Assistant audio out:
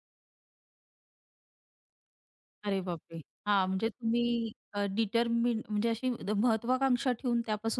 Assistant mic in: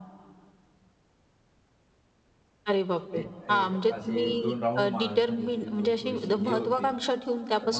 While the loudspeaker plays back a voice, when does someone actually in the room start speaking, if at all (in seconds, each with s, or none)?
3.2 s